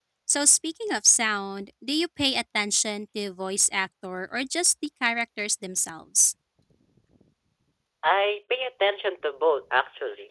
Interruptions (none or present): none